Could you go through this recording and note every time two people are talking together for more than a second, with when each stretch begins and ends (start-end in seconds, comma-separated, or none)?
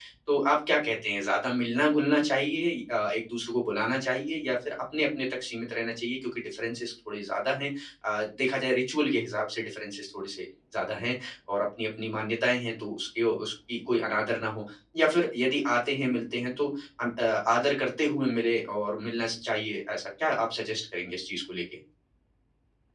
none